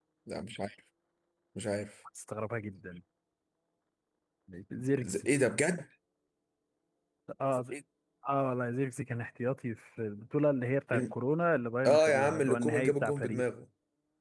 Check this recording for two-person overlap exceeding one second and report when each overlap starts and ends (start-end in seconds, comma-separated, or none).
11.9-13.4